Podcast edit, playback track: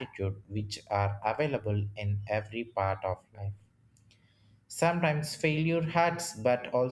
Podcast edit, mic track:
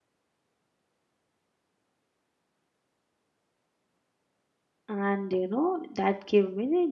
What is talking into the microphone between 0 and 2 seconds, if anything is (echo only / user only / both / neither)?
neither